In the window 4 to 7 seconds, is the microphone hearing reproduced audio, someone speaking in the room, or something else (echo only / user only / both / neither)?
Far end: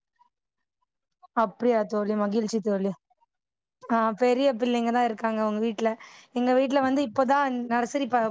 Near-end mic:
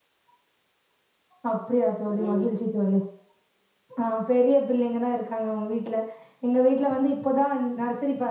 echo only